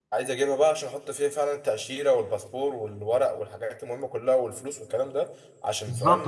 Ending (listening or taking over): taking over